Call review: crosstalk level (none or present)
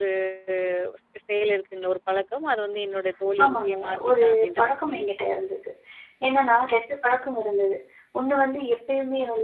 present